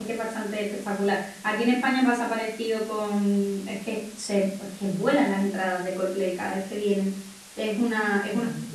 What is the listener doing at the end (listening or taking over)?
listening